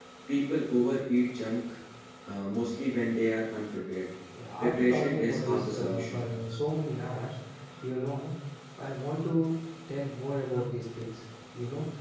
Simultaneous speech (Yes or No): Yes